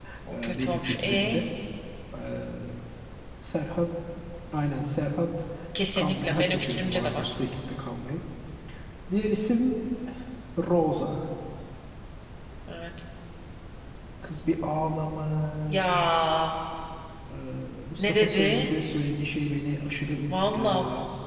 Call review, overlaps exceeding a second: present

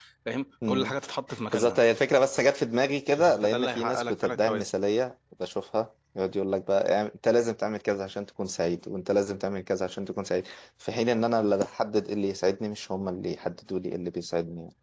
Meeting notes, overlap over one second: present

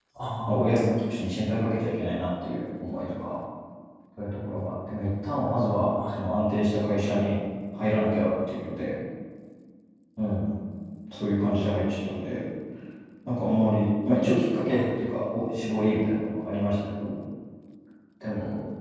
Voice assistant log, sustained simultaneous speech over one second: none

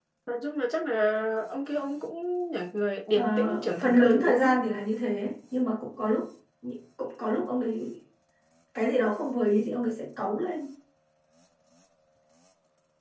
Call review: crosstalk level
present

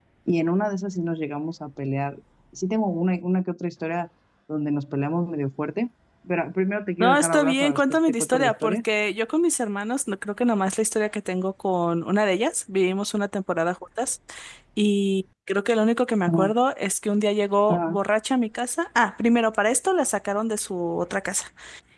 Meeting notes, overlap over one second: present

